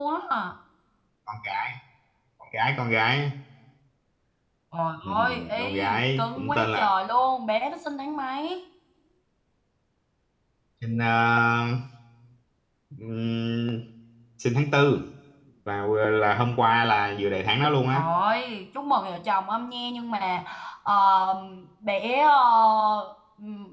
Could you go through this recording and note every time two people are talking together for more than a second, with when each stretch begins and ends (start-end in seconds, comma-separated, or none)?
5.0-6.9